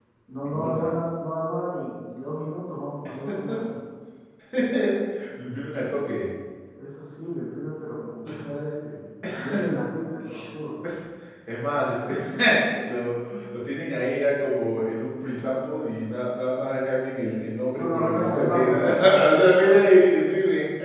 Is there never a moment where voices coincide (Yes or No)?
No